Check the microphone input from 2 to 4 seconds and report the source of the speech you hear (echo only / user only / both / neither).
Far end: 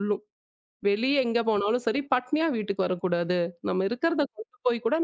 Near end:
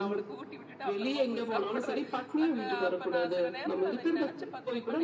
both